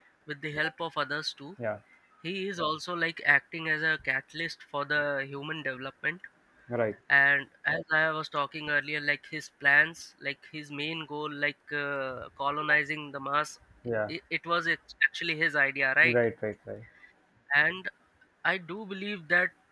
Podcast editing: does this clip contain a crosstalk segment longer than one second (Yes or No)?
No